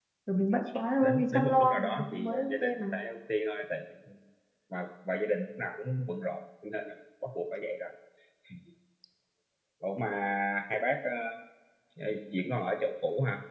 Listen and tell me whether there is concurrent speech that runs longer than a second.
Yes, from 1.0 s

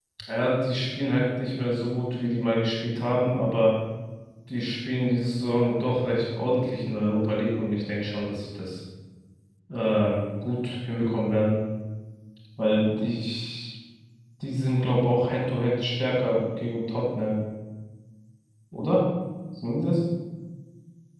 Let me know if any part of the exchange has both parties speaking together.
No

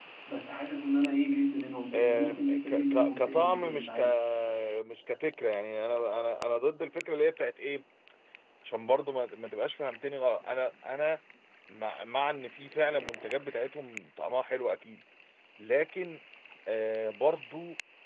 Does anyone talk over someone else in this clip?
Yes, from 1.9 s

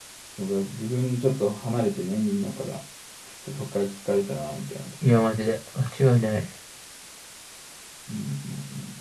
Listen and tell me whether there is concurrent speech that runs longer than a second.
No

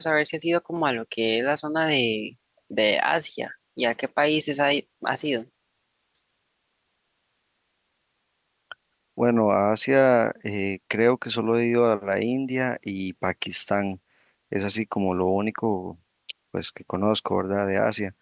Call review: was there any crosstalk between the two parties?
No

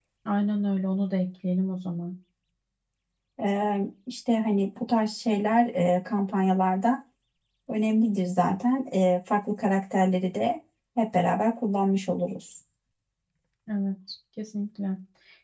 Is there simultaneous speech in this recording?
No

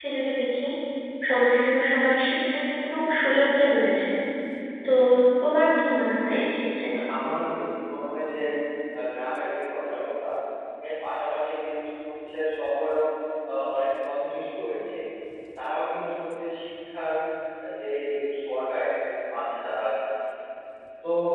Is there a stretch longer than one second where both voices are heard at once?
No

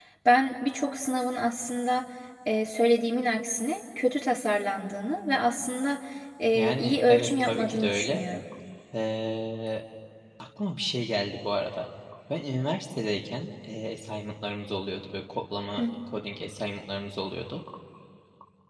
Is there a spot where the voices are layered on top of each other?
Yes, from 6.5 s

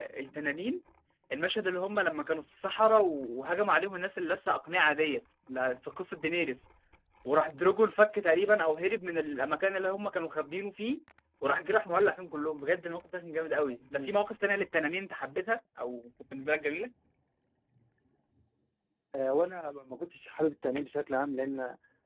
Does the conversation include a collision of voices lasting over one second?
No

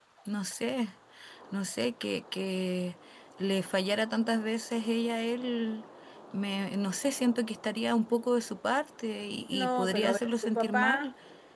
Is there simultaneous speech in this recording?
Yes, from 9.5 s

